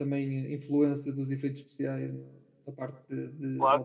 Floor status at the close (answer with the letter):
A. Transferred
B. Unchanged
A